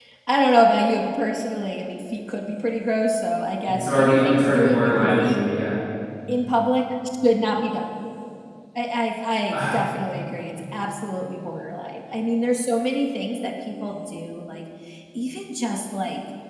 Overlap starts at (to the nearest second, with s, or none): 4 s